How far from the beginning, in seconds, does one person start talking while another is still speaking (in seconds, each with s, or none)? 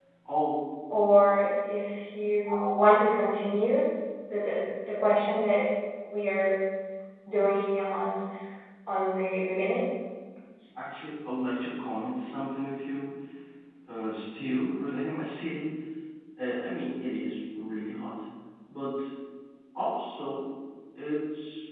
none